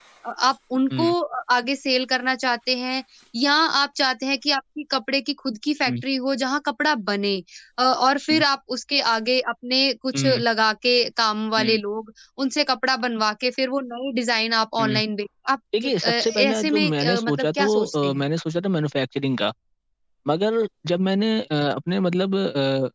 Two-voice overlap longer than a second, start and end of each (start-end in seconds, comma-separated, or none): 15.8-18.2